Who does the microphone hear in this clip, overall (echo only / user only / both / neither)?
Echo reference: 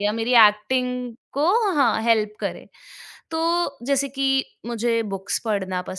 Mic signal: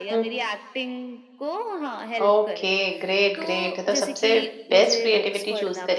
both